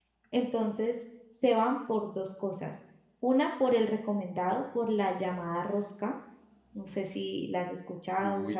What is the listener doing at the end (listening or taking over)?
taking over